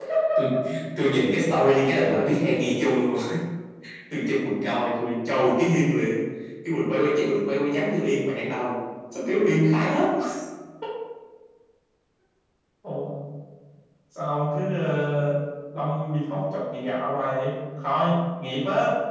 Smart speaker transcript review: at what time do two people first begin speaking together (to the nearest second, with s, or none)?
none